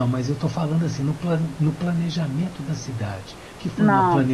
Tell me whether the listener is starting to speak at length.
No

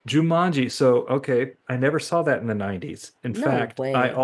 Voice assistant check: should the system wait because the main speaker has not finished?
Yes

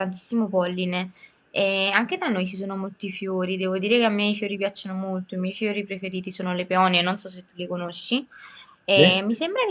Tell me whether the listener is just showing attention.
Yes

